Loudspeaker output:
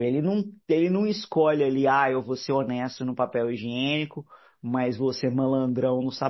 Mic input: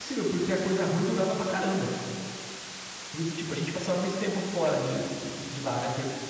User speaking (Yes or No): Yes